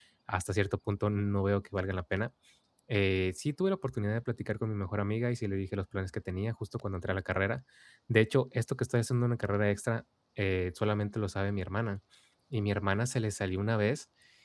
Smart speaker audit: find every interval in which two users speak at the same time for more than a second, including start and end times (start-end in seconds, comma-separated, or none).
none